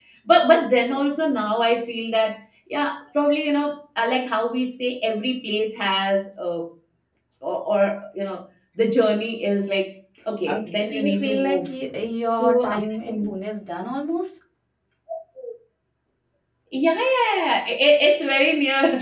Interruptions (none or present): present